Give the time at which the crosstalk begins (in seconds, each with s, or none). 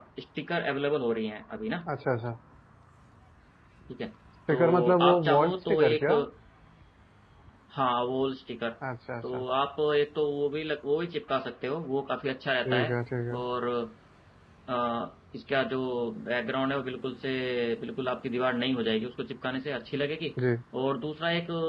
4.5 s